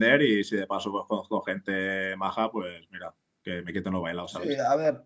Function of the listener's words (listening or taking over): taking over